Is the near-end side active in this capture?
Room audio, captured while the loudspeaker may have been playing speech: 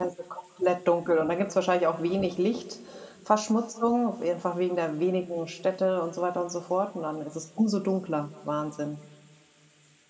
Yes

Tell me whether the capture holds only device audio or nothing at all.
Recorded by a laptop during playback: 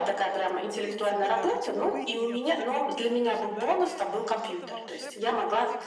No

